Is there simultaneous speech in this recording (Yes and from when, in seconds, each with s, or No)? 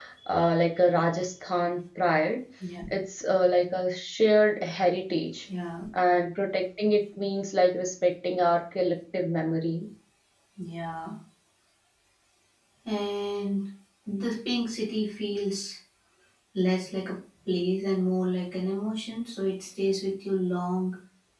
No